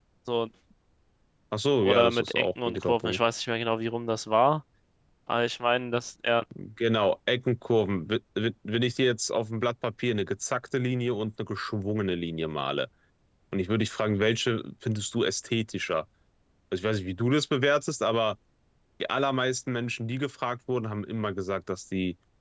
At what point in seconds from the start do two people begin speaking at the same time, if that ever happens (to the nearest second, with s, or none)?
2 s